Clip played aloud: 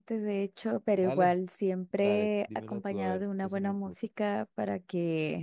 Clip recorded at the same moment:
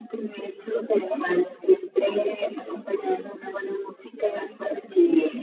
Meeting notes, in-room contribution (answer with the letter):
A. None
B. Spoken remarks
A